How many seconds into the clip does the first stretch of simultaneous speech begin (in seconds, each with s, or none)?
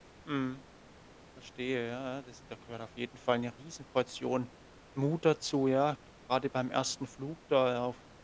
none